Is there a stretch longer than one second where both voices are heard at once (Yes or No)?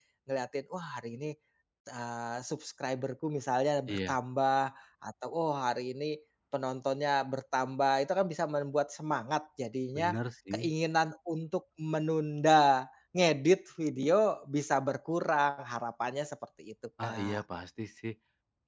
No